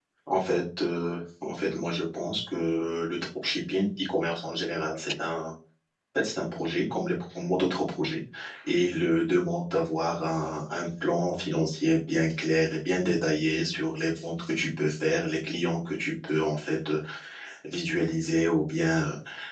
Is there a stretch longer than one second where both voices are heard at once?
No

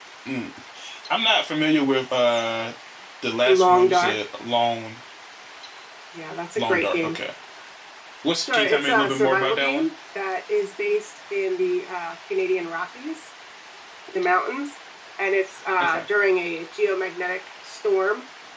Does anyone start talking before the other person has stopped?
Yes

